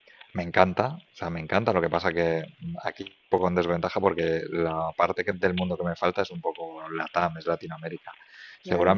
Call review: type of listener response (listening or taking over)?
listening